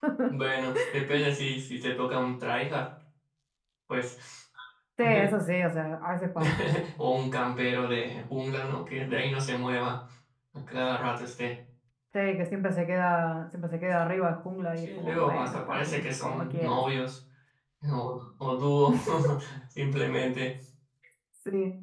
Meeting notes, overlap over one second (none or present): present